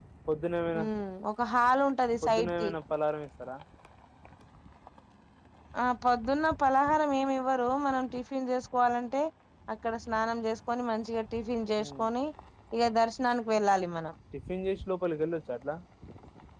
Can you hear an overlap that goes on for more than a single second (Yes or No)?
No